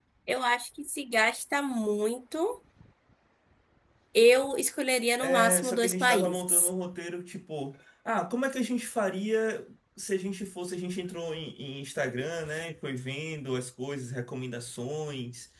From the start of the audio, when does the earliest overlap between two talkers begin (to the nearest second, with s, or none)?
5 s